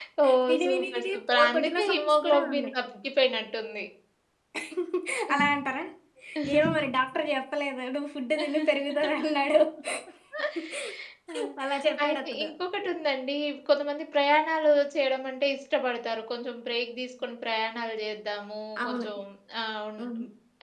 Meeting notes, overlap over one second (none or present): present